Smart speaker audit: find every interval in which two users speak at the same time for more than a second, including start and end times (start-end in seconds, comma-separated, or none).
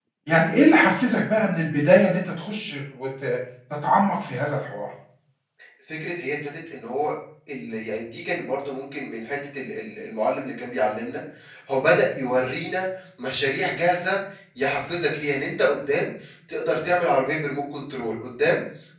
none